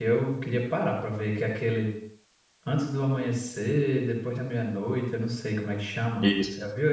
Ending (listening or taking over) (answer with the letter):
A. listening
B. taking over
B